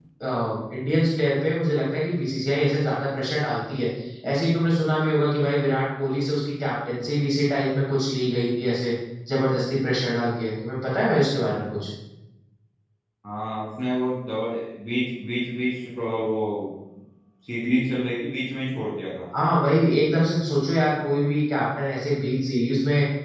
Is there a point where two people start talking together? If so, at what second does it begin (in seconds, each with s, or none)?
none